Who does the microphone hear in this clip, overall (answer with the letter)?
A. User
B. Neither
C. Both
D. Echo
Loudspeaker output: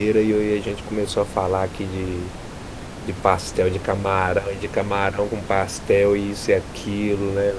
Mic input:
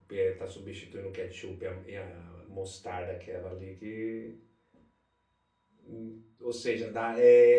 A